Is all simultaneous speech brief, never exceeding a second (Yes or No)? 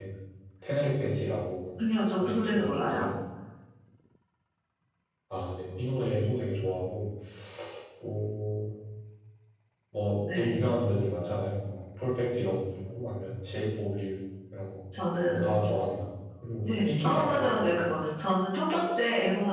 No